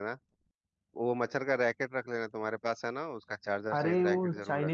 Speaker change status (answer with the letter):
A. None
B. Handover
B